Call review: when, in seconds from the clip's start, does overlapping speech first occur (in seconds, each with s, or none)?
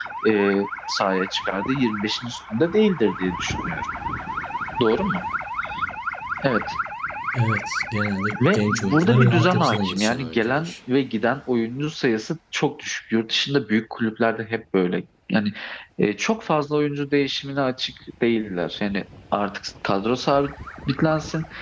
8.3 s